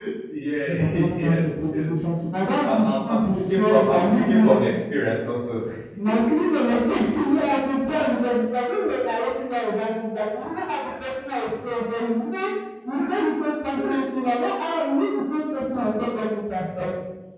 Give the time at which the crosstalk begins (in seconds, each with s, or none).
0.7 s